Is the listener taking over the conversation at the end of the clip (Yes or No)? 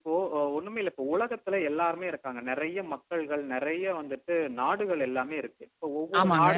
No